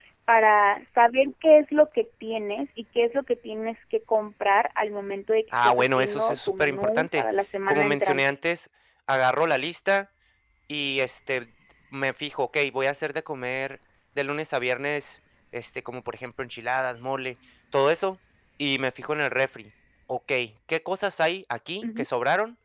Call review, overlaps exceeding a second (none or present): present